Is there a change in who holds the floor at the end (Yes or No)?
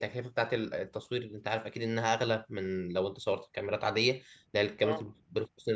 No